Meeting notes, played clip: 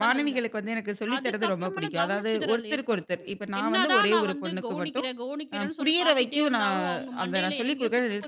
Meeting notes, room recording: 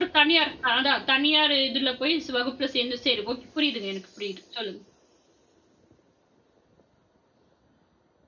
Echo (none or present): none